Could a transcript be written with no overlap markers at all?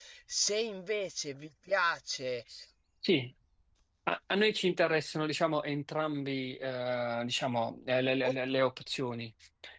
Yes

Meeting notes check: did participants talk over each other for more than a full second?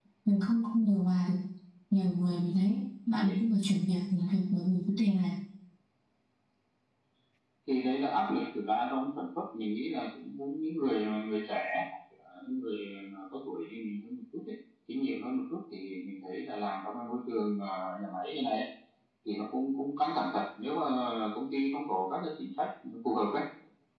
No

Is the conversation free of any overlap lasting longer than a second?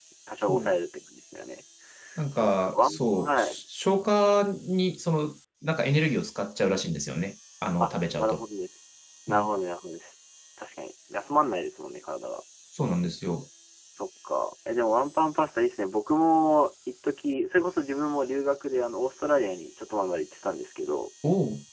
No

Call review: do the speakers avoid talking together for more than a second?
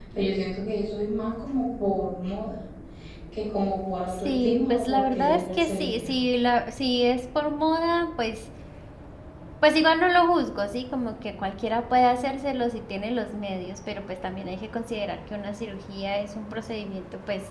No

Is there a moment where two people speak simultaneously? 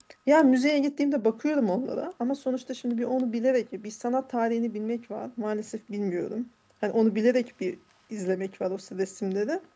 No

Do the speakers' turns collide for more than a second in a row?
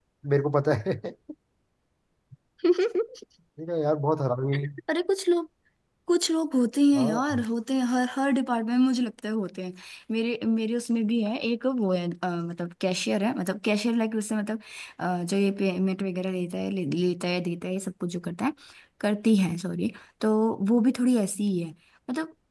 No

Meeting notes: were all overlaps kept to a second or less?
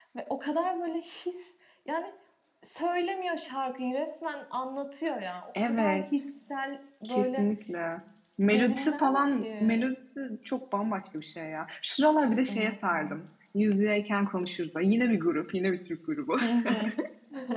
No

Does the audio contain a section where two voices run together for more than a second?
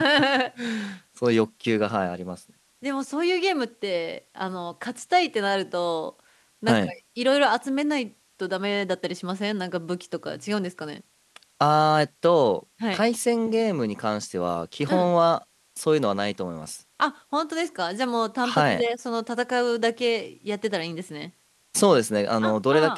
No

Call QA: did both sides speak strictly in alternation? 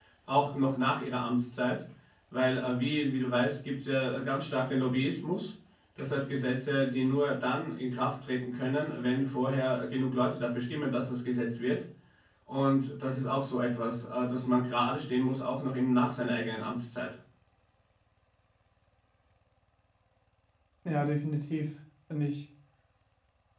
Yes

